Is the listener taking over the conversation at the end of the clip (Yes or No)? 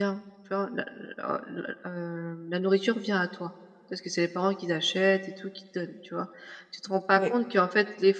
No